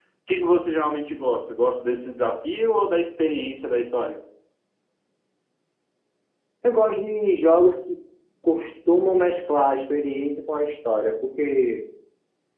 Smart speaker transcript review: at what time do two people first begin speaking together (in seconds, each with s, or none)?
none